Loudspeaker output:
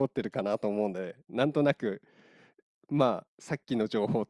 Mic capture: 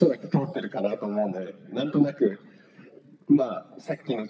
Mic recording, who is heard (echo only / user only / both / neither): echo only